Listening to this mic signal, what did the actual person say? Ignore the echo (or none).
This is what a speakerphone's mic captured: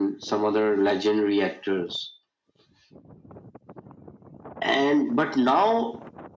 none